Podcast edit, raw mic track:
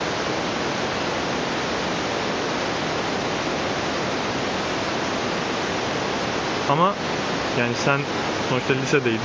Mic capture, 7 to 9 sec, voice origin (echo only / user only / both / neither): user only